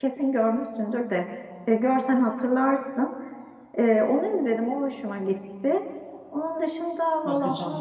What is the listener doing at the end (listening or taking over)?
listening